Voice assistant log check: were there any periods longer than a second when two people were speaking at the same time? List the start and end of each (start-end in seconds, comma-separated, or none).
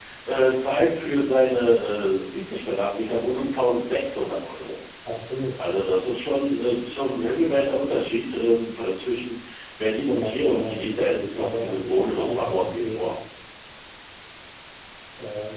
10.1-13.1